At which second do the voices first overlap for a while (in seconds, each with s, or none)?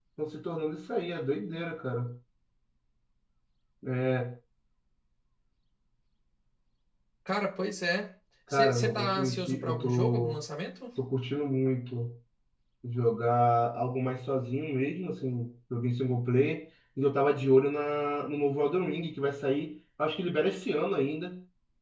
8.5 s